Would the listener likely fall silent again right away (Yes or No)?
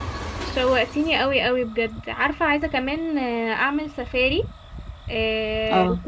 Yes